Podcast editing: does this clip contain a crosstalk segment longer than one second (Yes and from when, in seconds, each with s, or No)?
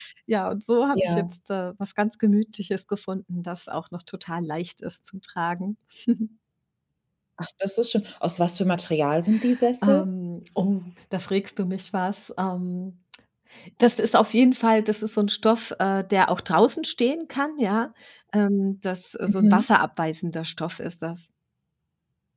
No